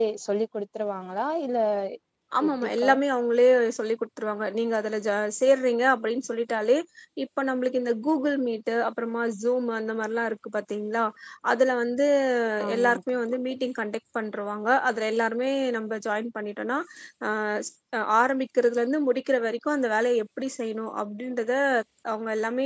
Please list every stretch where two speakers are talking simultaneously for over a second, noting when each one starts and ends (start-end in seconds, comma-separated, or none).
none